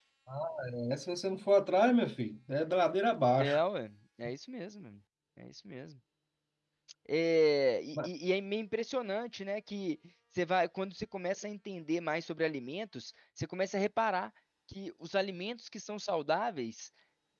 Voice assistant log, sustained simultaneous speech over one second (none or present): none